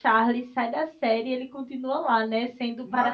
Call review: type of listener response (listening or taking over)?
listening